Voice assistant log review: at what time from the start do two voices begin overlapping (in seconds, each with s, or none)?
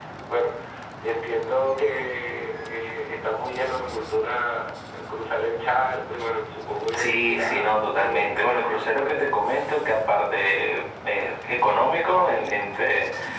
6.9 s